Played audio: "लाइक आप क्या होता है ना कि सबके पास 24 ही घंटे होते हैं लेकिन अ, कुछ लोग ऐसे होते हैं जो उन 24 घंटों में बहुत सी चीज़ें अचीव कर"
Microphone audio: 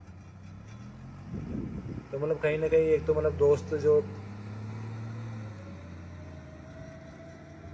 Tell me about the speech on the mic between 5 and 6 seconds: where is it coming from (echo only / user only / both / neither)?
neither